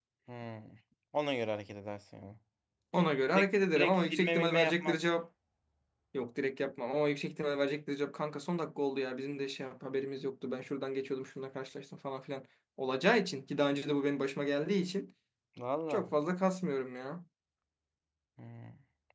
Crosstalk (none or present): present